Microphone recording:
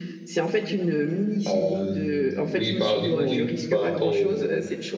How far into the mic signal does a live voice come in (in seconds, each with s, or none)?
1.5 s